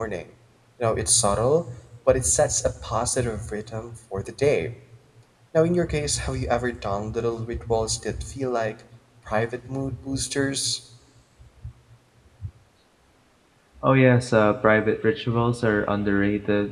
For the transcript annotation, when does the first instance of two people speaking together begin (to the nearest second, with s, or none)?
none